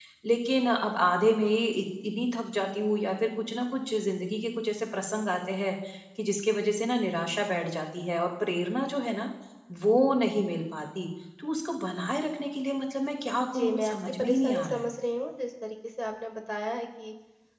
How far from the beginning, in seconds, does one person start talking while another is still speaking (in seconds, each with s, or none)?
13.5 s